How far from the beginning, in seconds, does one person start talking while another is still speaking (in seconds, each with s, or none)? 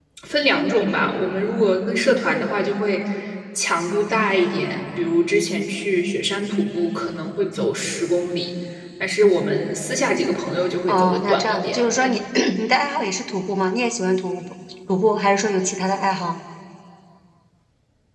10.9 s